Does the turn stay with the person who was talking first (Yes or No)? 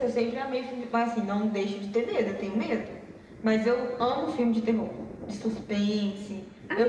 No